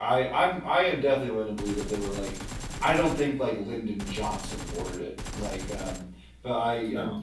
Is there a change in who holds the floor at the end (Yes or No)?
No